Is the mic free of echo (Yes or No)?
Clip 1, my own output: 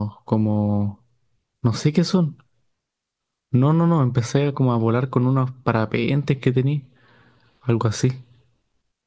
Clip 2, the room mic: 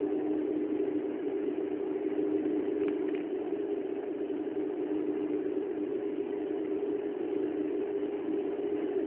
Yes